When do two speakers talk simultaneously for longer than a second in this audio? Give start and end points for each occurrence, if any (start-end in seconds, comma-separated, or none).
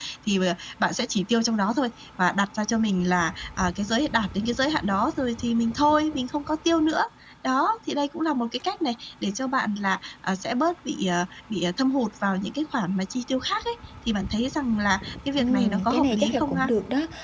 15.4-16.7